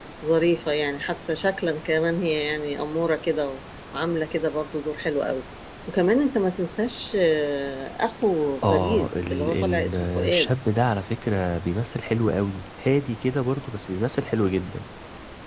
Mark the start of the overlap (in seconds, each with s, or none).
8.6 s